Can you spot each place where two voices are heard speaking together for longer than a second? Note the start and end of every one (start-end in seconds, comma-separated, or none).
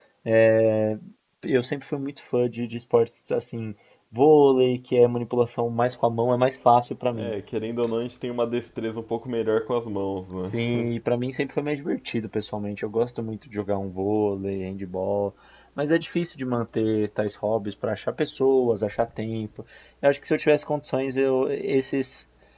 none